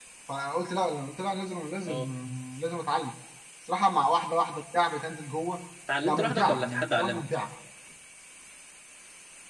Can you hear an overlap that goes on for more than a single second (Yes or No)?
Yes